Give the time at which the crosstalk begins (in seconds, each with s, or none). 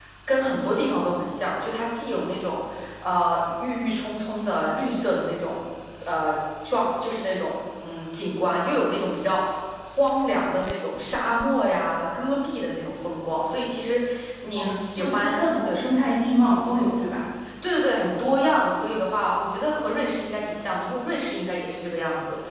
14.6 s